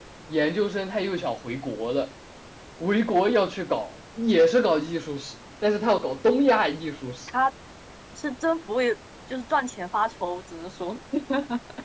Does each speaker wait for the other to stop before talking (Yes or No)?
Yes